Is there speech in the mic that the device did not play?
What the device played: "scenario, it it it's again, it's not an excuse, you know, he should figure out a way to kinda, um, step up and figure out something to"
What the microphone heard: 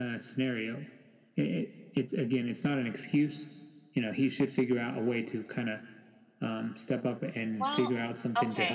Yes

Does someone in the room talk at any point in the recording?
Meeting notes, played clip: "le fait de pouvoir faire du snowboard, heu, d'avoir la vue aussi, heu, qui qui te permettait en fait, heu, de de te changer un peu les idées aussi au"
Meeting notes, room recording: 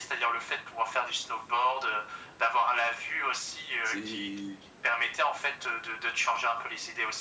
Yes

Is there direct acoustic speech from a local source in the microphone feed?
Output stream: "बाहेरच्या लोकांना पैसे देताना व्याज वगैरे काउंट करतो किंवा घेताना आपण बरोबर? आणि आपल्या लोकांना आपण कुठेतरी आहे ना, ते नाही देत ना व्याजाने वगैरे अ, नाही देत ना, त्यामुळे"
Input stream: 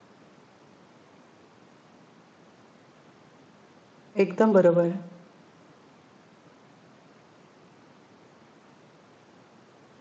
Yes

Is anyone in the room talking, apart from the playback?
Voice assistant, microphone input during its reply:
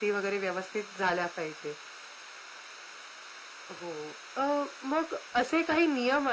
No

